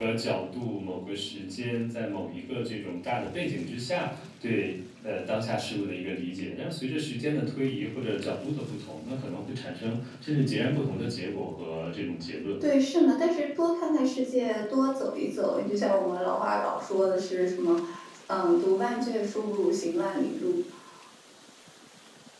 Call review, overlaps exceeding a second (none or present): none